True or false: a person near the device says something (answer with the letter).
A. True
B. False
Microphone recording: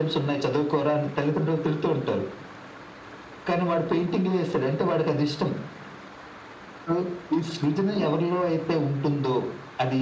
B